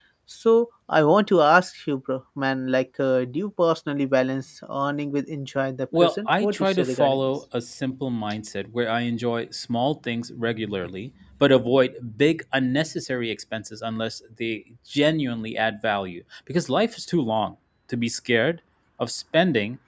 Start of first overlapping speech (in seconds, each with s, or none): 5.9 s